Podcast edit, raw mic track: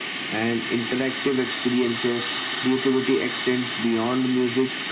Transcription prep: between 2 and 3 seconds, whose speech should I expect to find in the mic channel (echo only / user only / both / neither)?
echo only